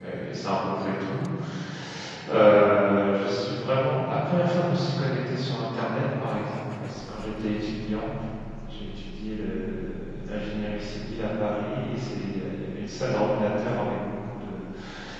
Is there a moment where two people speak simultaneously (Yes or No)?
No